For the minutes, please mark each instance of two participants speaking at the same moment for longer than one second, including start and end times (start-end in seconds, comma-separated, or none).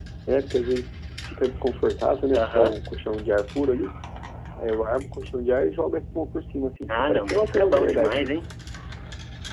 6.9-8.3